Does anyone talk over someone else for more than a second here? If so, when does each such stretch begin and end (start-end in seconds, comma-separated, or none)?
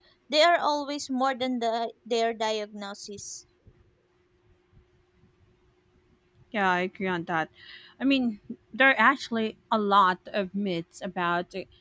none